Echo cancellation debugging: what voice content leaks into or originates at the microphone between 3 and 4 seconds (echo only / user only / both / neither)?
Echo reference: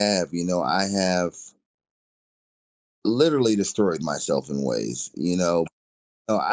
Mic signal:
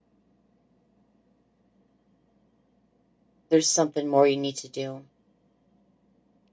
user only